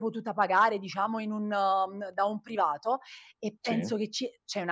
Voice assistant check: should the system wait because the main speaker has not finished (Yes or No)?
Yes